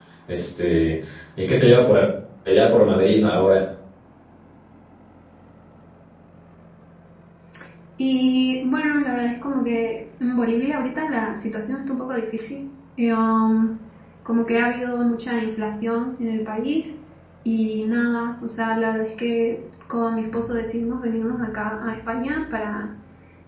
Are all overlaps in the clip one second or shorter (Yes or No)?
Yes